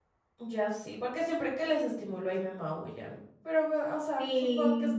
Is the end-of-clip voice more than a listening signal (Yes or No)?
Yes